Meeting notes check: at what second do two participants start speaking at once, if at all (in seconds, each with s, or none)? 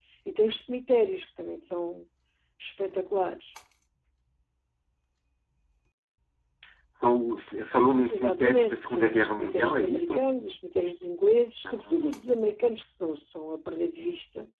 8.1 s